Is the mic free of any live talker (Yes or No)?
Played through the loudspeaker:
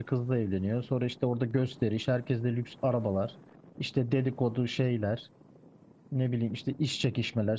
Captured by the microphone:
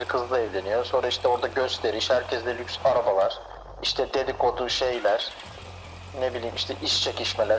Yes